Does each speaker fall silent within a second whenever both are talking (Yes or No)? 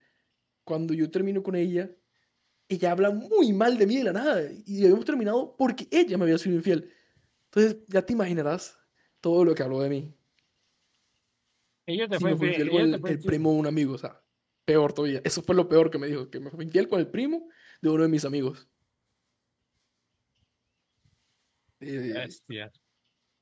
No